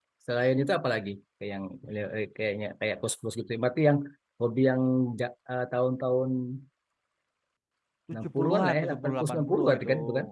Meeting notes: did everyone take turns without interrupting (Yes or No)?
No